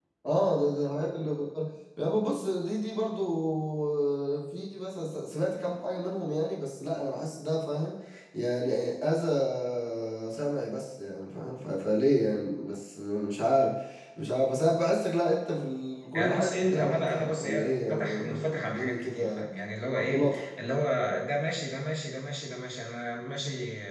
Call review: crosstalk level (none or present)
present